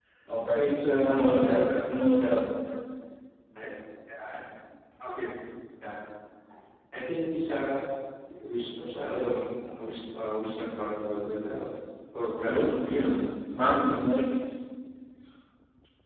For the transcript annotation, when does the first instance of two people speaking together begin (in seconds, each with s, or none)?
0.5 s